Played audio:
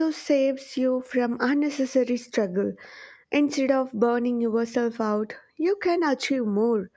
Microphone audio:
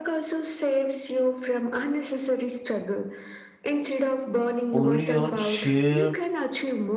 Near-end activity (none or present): present